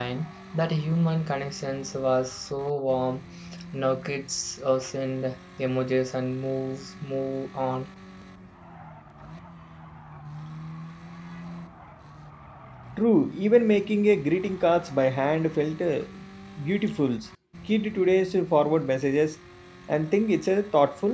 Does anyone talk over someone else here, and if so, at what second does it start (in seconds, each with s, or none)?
none